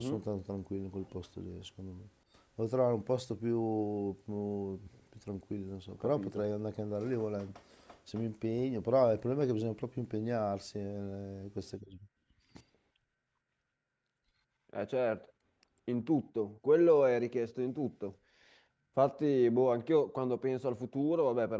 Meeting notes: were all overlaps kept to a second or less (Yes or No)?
Yes